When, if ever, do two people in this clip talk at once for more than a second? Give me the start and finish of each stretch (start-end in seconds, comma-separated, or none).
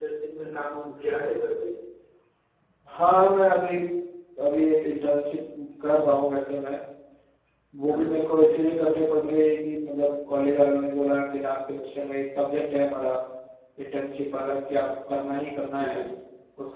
none